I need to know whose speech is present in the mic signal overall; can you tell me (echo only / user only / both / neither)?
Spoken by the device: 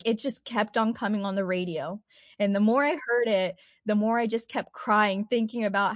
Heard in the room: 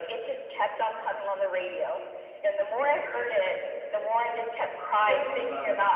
both